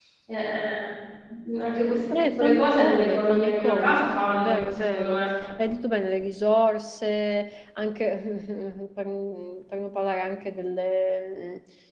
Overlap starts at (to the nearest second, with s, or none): 2 s